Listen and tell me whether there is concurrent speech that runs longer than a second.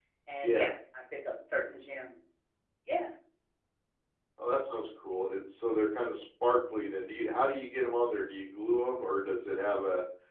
No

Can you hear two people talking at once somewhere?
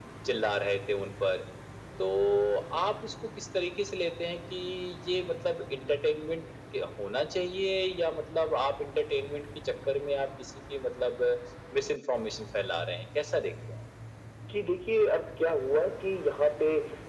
No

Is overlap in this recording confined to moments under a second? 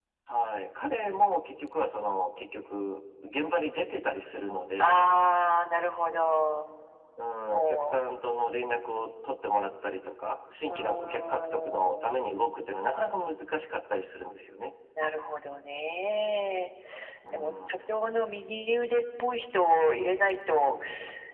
No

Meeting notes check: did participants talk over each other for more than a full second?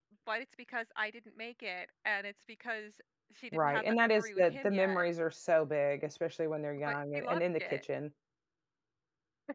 Yes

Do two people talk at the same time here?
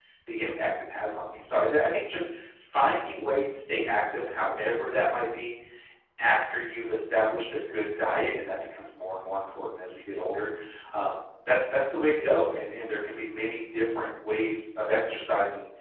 No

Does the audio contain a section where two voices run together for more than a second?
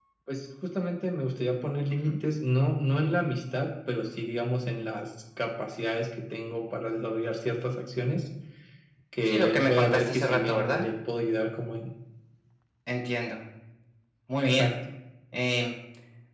Yes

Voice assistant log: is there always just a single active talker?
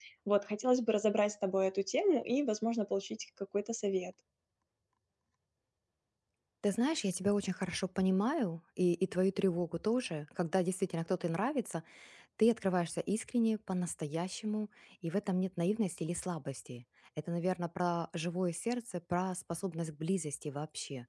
Yes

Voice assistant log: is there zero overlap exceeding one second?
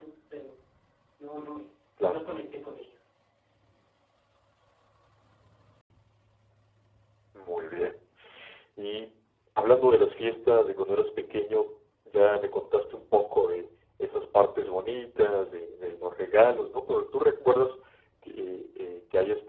Yes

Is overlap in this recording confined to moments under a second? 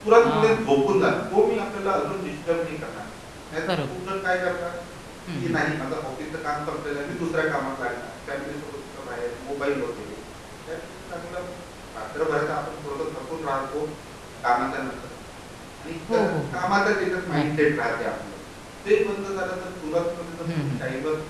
Yes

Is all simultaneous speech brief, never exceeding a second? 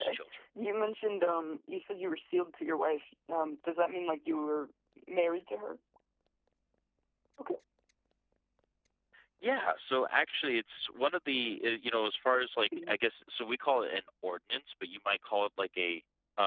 Yes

